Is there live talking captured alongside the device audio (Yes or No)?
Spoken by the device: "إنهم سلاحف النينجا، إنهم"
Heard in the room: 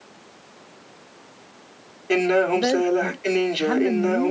Yes